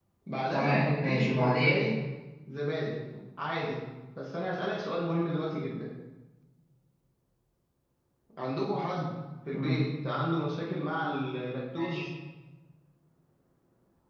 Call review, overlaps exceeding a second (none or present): present